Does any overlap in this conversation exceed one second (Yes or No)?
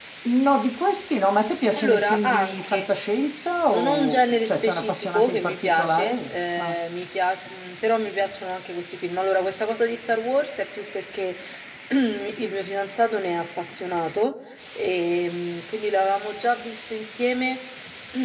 Yes